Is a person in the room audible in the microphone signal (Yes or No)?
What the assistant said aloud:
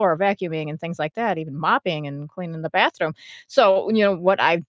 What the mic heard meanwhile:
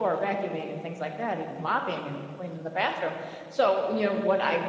No